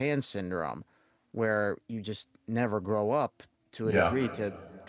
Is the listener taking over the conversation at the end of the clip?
No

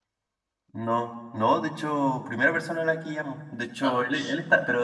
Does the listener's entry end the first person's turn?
No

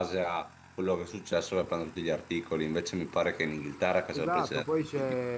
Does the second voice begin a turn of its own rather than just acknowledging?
Yes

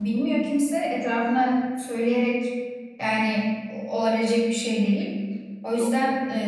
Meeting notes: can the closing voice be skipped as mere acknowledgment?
Yes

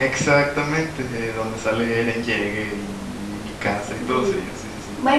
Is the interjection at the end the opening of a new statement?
Yes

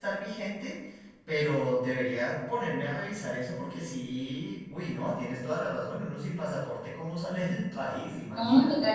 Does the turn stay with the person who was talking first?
No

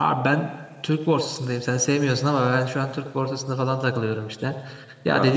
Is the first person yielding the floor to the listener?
No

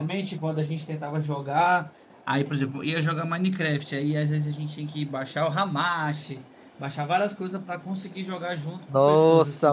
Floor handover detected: Yes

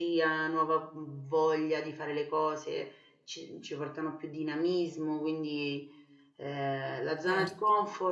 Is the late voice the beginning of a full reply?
No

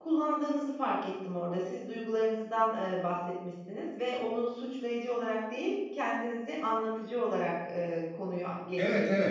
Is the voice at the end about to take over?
Yes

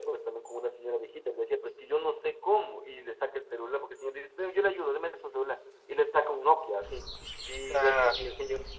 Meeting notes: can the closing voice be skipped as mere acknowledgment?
Yes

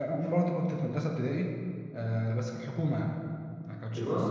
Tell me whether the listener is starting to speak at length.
No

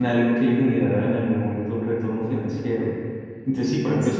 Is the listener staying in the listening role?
Yes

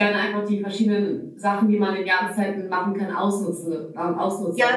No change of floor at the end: No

